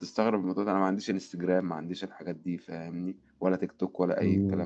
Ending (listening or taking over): taking over